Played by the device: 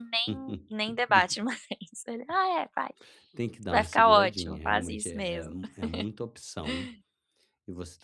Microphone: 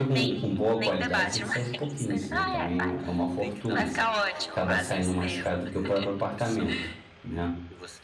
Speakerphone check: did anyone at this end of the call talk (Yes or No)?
Yes